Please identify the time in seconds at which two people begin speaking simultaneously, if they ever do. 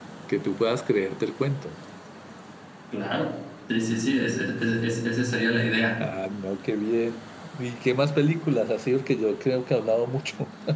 none

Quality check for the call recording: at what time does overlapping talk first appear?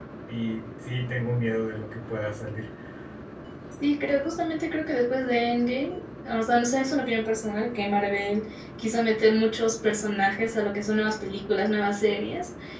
none

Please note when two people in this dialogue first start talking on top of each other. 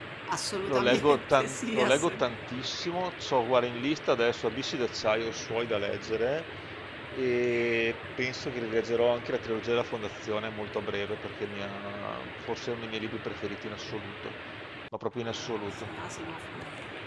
0.6 s

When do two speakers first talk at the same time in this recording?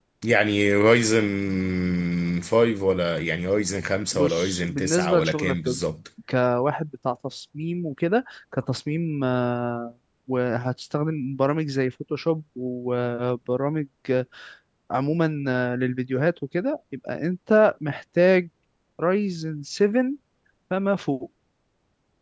4.1 s

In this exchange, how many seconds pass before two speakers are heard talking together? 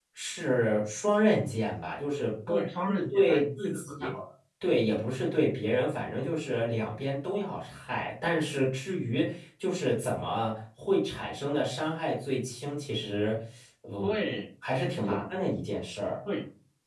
2.5 s

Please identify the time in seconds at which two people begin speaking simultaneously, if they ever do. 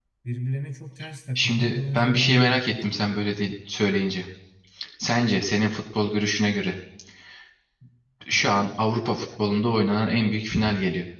1.4 s

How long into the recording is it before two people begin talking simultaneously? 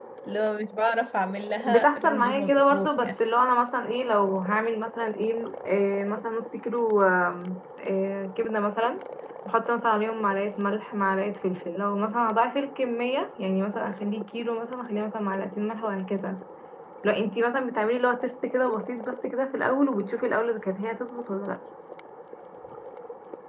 1.7 s

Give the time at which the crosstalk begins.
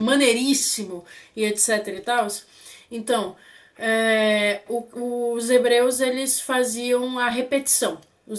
none

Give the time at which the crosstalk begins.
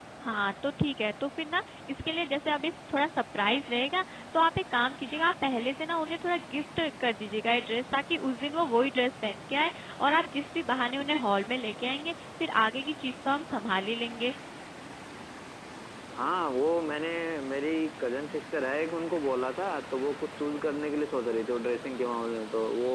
none

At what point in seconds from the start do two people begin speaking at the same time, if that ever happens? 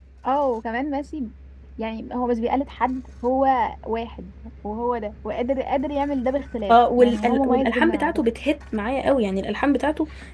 6.7 s

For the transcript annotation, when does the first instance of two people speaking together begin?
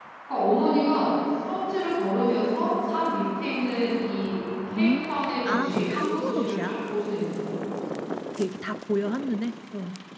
4.8 s

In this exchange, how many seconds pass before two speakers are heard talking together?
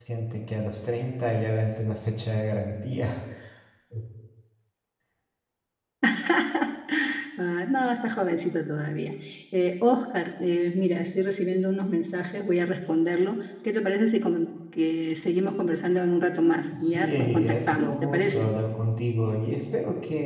16.7 s

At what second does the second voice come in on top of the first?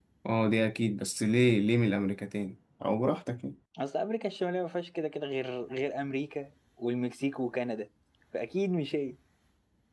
none

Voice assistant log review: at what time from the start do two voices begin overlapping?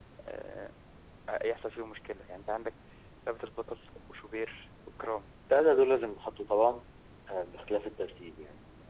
none

